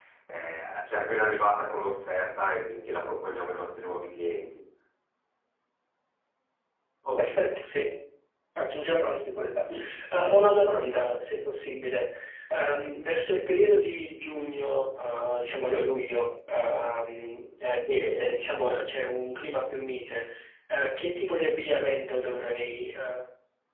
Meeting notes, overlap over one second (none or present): none